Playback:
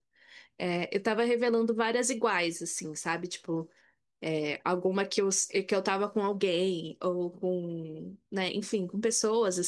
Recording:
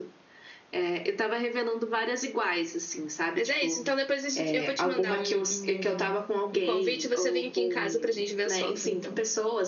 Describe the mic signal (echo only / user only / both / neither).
both